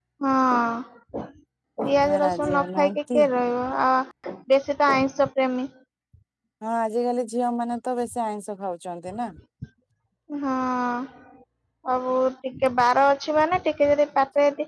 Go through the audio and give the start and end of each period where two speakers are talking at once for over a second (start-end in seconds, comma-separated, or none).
1.8-3.2